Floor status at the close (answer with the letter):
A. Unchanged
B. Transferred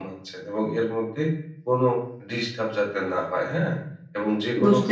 A